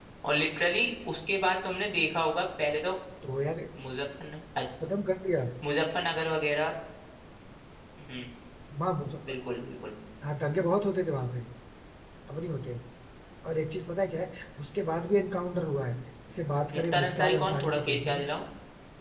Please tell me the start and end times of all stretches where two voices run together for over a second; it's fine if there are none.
16.8-18.2

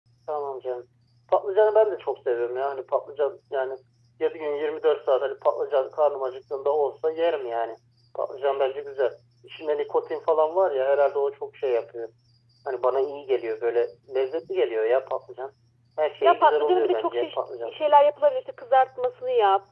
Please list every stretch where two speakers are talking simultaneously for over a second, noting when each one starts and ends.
16.2-17.8

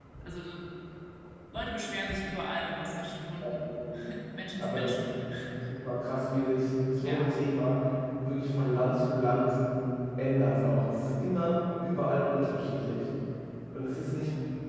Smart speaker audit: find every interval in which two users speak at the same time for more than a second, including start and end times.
none

